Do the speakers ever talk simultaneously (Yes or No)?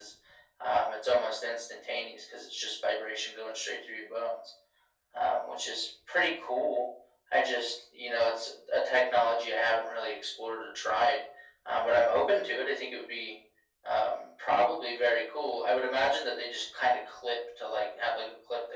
No